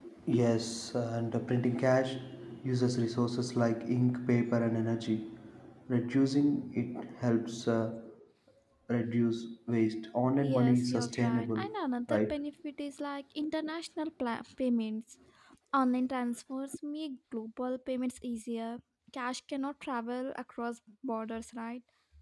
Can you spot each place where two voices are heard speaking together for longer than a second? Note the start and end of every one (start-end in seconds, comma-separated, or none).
10.4-11.7